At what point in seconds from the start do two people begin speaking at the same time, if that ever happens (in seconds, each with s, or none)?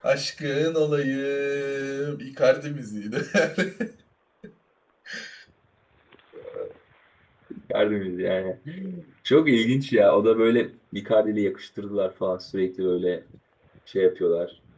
none